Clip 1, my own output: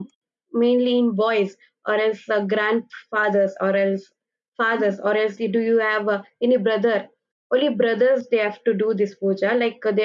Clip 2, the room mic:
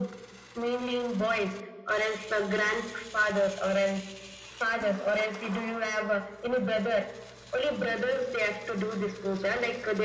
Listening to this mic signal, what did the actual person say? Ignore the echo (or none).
none